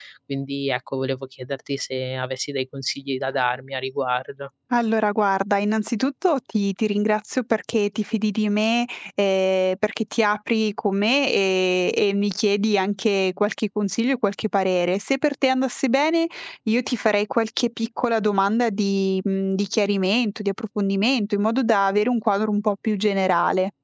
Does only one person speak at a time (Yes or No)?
Yes